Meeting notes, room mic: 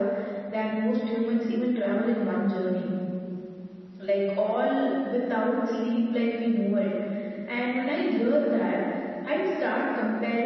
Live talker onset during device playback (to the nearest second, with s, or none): none